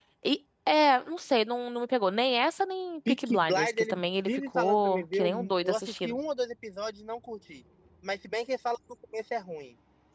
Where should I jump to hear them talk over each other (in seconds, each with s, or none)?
3.1 s